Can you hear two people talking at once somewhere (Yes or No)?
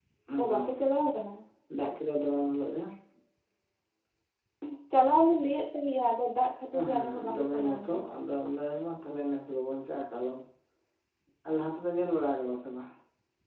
Yes